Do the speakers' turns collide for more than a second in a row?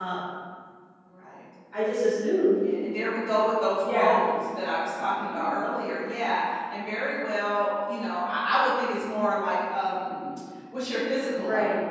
No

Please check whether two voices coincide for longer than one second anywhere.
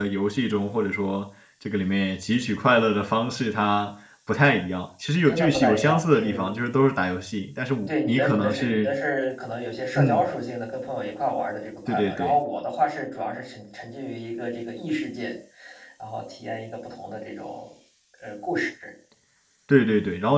Yes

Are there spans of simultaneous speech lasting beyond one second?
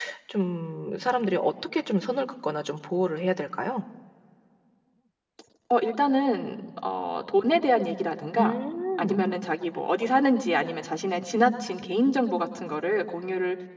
No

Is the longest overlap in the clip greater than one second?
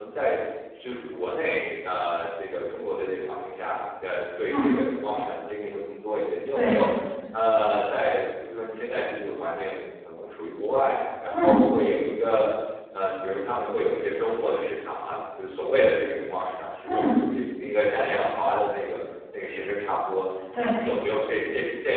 No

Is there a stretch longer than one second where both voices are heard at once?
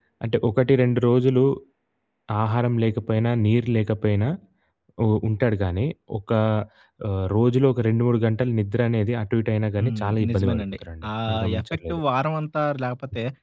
Yes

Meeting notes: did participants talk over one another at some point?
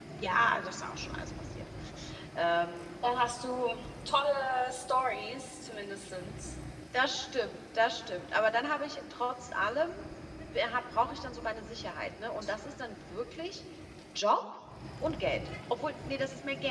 No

